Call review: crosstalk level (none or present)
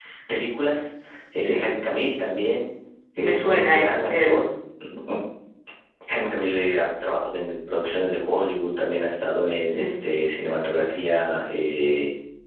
present